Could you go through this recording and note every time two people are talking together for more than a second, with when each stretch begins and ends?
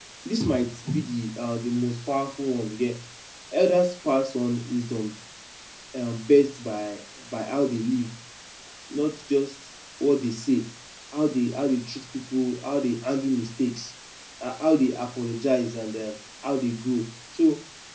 none

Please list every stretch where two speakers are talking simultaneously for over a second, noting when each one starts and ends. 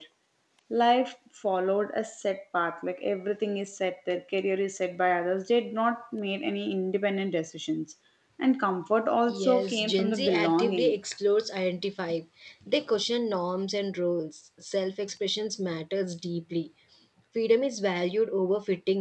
9.3-11.0

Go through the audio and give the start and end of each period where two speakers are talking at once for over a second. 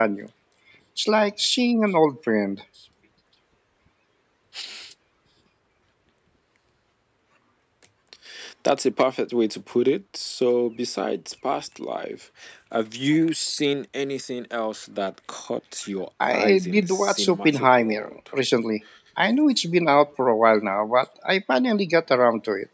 16.3-18.1

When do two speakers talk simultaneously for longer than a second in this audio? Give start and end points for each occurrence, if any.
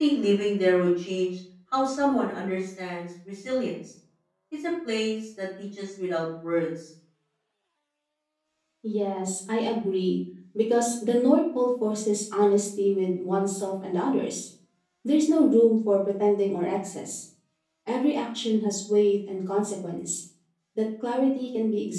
none

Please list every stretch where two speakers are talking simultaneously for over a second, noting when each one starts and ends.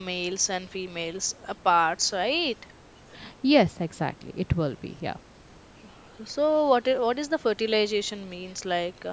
none

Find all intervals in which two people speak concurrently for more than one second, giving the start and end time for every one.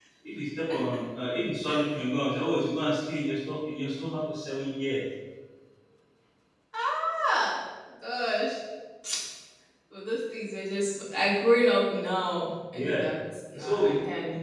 none

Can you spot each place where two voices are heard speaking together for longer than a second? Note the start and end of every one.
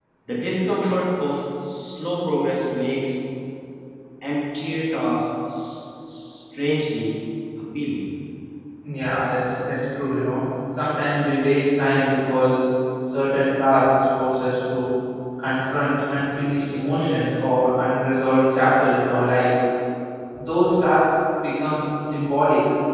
none

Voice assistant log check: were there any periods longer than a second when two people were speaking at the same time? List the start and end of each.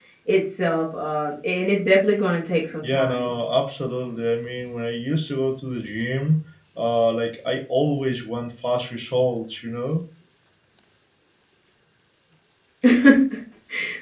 none

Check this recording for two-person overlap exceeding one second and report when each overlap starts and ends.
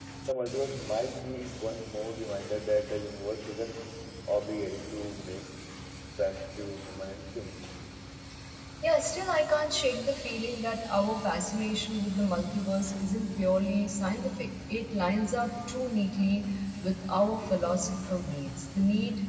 none

